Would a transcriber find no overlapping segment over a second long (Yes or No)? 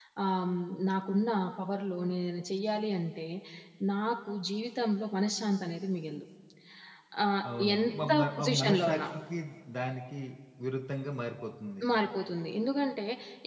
No